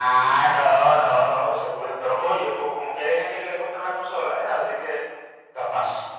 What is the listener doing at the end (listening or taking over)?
taking over